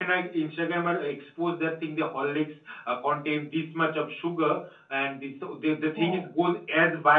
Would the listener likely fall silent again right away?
Yes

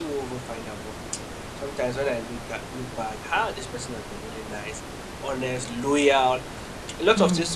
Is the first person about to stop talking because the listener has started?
No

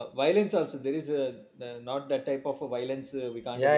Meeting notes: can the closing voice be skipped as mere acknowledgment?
No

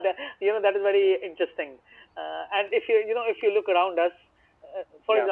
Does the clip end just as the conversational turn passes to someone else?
No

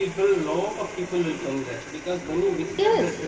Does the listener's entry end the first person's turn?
No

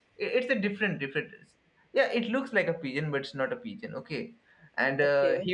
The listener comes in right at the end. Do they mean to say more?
No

